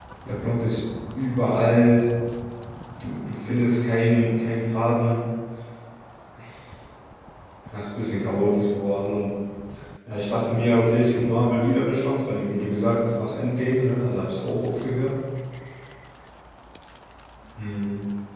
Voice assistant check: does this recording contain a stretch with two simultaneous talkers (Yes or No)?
No